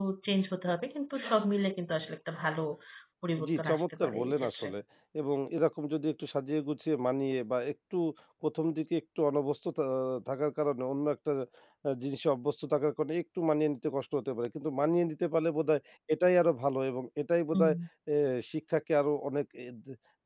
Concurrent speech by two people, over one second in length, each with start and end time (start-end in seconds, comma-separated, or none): 3.5-4.7